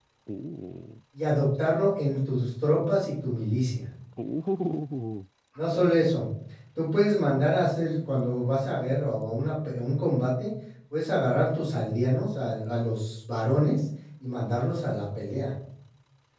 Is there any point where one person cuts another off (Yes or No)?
No